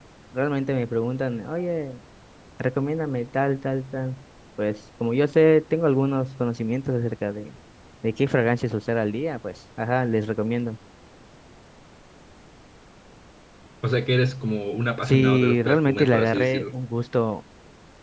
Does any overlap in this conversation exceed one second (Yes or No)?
Yes